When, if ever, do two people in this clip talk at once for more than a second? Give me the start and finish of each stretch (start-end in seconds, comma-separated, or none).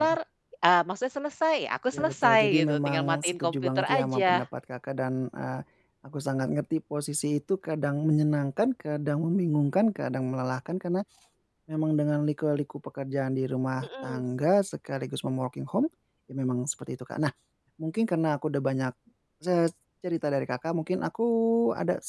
1.9-4.4